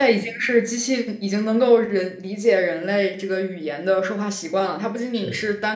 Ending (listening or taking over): listening